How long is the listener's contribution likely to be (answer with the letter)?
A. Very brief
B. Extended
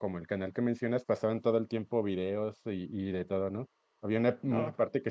A